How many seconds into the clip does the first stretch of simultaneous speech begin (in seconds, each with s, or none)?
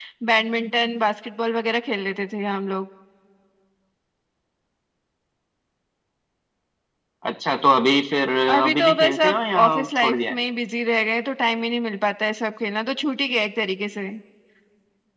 8.5 s